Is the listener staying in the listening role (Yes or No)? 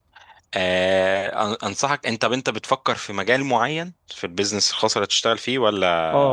No